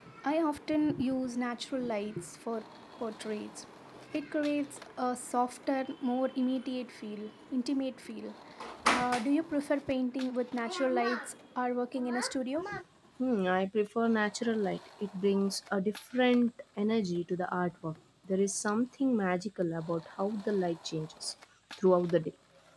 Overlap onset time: none

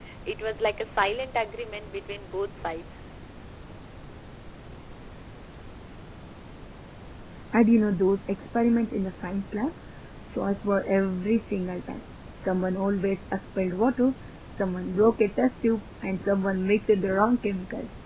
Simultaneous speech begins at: none

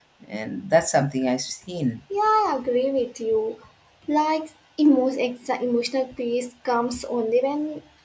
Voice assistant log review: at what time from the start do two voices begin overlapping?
none

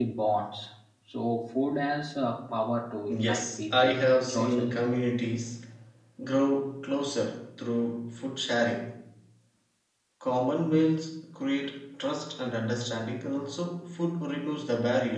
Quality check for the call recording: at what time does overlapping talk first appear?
3.1 s

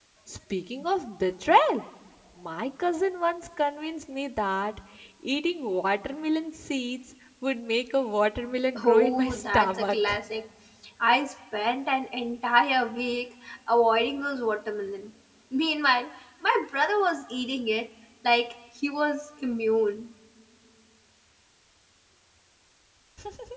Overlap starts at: 8.8 s

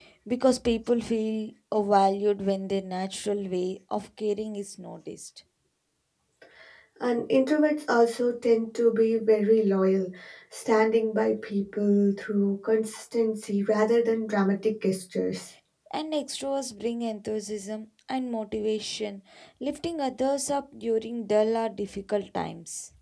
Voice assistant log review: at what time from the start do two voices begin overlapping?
none

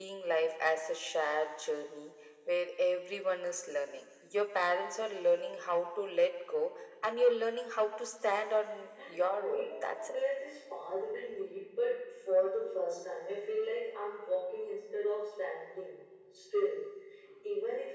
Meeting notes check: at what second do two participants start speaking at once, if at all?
9.0 s

